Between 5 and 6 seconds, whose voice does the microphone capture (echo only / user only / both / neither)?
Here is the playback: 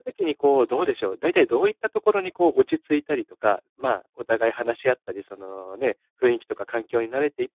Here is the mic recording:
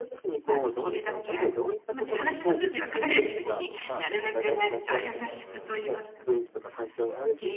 both